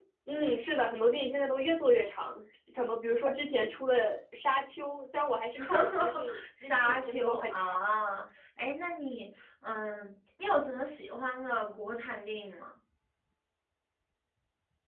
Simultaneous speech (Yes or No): Yes